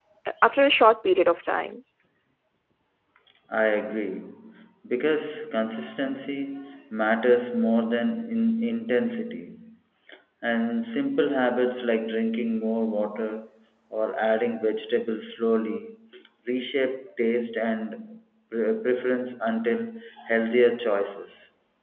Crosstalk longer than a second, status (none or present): none